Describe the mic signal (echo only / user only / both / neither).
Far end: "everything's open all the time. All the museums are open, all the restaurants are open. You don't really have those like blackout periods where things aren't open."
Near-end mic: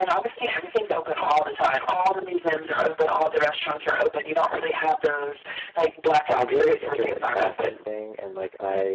both